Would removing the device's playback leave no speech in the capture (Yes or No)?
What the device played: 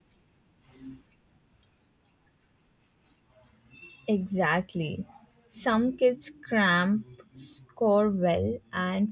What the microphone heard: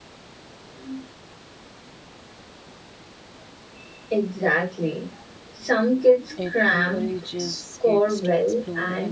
No